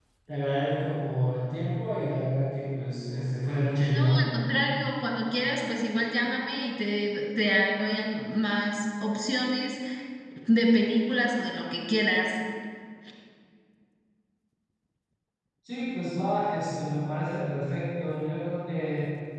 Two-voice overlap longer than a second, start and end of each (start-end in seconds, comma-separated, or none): none